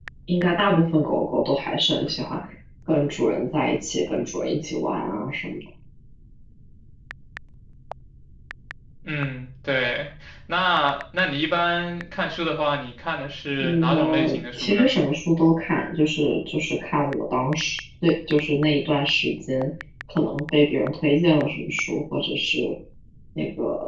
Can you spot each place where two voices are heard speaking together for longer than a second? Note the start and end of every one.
13.6-14.9

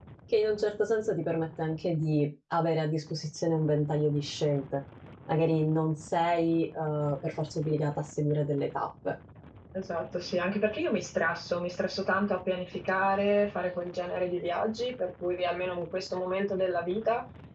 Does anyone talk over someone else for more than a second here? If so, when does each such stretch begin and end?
none

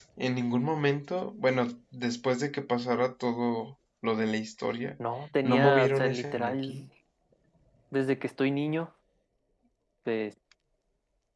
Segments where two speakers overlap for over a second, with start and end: 5.4-6.8

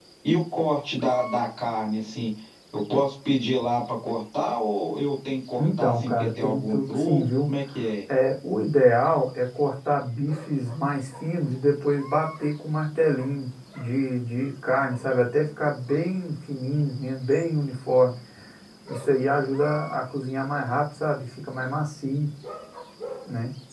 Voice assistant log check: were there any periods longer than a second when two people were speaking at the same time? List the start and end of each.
5.6-7.2

